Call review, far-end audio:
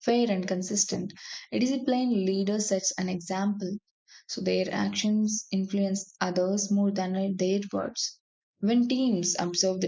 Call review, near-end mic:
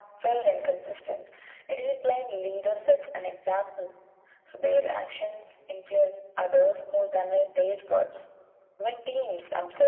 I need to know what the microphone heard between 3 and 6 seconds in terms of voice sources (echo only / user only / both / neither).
echo only